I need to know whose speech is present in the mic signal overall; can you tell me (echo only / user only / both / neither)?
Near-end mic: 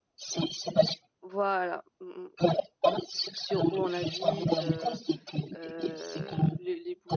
both